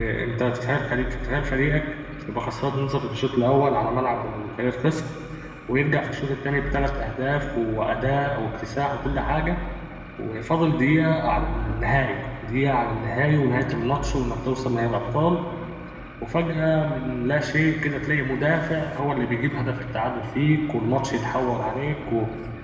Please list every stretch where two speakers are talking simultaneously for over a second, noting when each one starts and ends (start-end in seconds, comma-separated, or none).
none